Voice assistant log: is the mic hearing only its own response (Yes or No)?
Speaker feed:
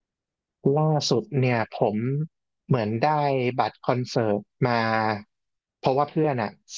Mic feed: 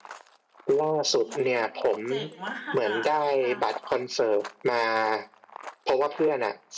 No